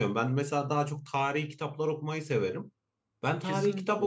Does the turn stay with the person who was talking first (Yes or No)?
Yes